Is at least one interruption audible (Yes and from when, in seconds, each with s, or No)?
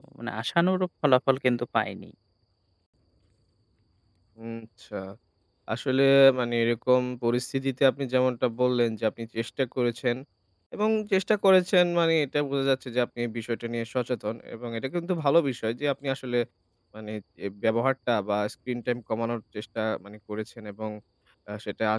No